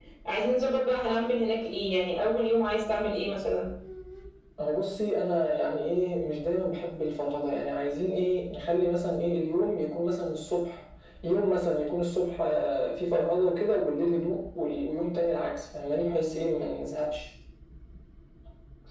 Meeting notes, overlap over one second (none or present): none